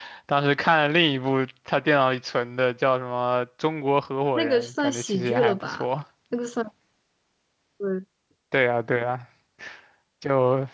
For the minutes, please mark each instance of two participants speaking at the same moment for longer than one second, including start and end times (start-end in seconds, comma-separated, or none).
4.3-5.8